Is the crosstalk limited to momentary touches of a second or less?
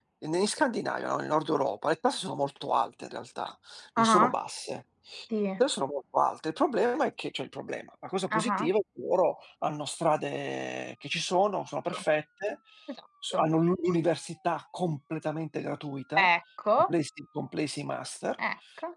Yes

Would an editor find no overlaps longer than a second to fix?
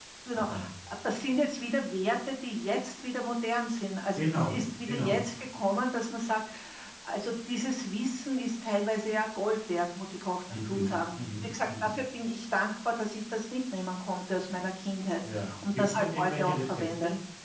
No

